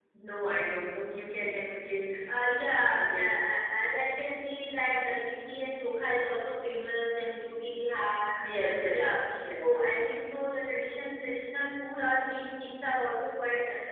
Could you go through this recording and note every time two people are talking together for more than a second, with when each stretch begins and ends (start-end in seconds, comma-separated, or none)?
none